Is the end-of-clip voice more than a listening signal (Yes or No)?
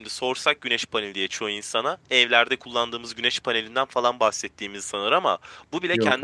No